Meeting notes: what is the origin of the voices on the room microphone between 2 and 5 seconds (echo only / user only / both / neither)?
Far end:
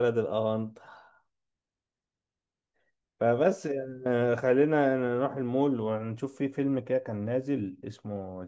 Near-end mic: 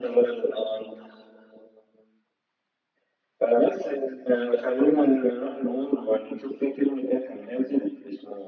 echo only